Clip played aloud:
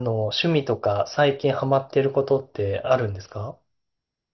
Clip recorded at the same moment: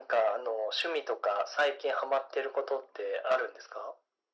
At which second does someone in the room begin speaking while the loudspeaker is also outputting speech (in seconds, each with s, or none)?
none